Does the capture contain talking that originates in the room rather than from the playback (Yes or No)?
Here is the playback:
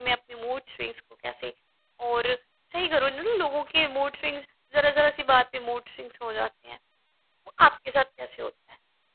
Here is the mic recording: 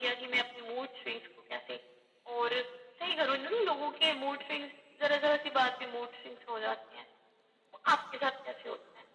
No